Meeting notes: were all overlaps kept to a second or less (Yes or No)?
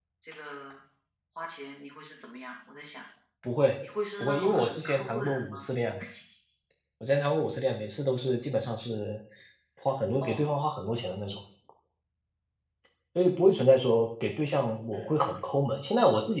No